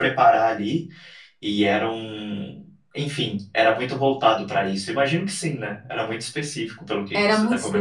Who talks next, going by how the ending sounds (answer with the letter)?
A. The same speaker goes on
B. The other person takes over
B